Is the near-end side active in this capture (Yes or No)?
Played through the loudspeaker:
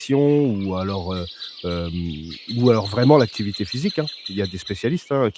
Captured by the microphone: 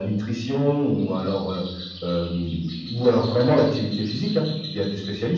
No